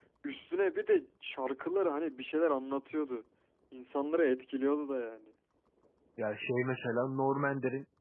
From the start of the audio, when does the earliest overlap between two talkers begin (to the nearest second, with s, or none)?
none